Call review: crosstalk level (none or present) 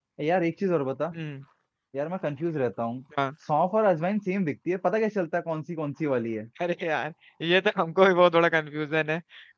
none